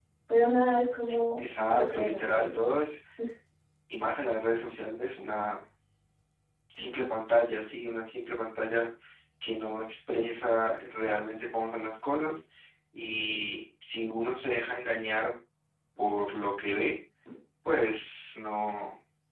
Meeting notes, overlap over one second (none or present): present